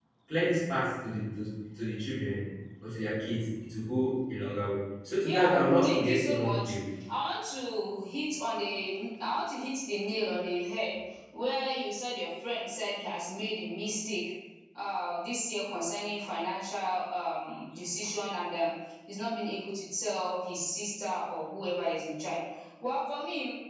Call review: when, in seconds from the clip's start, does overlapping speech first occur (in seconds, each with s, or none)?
5.2 s